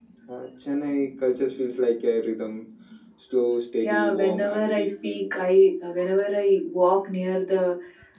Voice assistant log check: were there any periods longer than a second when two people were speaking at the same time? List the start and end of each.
3.8-5.5

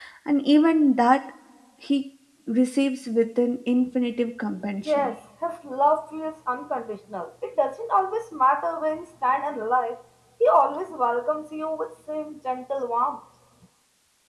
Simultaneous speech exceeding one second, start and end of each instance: none

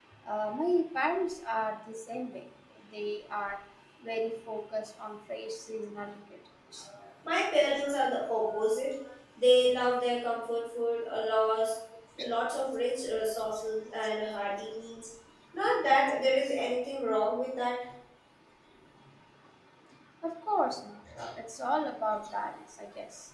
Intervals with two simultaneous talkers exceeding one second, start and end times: none

